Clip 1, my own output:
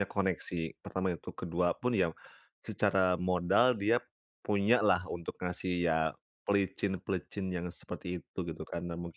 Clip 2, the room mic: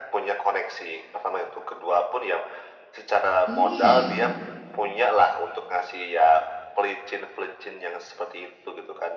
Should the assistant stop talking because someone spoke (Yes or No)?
Yes